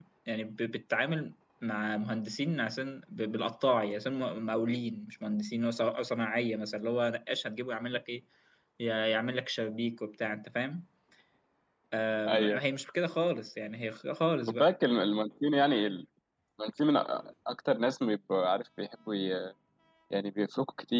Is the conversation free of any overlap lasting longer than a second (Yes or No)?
Yes